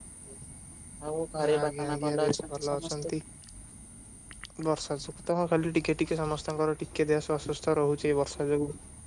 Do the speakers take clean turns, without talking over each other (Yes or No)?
No